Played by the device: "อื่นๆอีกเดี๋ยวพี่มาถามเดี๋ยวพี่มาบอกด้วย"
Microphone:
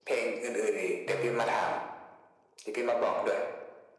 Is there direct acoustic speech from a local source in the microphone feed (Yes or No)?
Yes